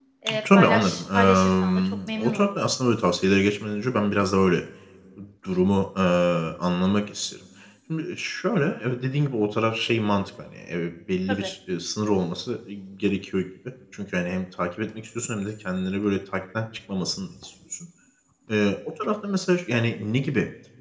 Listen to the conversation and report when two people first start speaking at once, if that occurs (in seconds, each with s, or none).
0.5 s